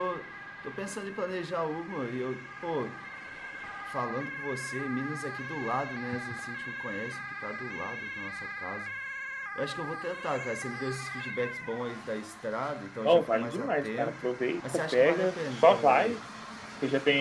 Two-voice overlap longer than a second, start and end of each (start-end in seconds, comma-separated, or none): 13.1-16.2